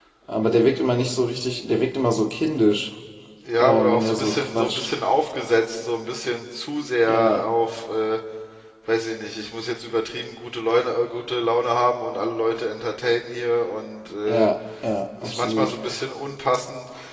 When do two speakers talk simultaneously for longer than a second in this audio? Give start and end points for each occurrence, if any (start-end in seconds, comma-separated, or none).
3.6-4.9